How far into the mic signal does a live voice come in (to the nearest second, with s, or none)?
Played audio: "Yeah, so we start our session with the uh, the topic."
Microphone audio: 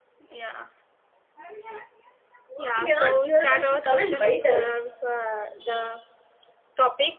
3 s